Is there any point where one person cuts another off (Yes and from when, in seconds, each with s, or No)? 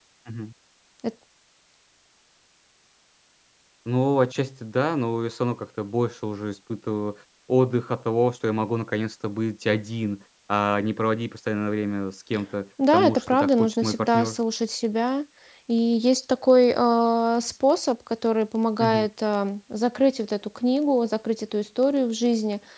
Yes, from 12.8 s